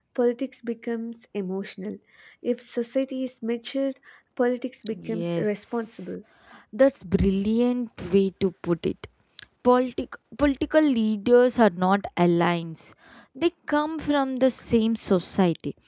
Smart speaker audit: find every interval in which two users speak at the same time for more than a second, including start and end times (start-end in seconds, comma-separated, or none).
4.9-6.1